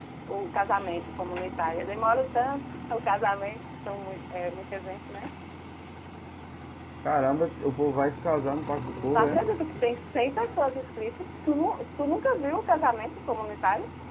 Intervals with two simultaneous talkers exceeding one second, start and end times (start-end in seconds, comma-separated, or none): none